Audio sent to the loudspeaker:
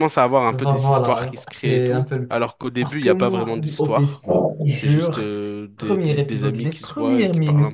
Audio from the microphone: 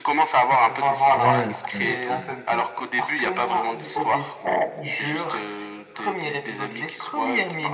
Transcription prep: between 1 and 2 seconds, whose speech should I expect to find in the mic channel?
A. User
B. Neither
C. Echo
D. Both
D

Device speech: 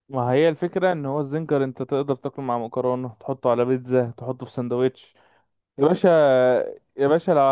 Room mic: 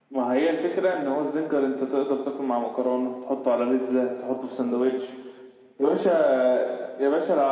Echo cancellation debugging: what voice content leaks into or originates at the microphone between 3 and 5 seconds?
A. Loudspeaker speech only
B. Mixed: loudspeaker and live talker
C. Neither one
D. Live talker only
A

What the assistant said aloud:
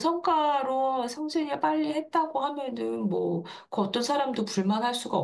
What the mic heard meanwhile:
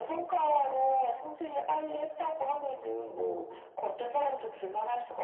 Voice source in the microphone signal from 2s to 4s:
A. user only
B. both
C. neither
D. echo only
D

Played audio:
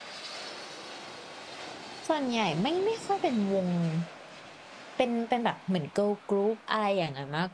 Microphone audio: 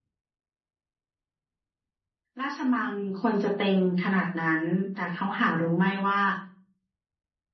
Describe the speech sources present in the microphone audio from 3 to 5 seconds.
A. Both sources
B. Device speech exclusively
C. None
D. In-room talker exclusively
D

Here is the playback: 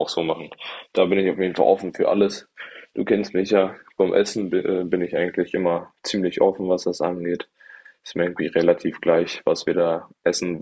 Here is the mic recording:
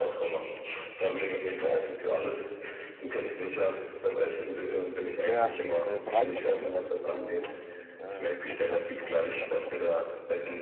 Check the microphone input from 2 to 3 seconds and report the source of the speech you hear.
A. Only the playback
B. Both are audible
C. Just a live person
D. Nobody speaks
A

